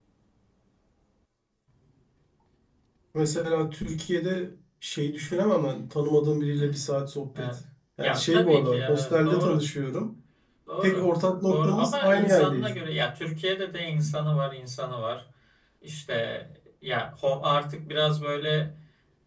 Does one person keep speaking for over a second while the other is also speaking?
Yes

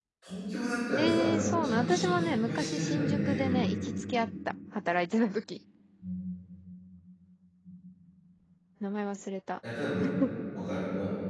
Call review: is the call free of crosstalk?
No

